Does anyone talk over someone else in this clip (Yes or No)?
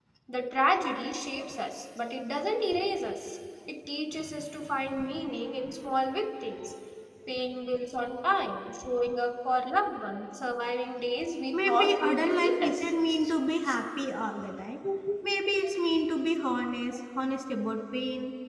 Yes